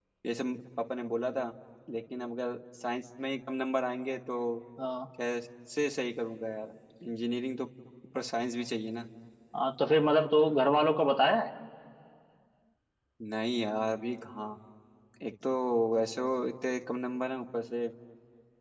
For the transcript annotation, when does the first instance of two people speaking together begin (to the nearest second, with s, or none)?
none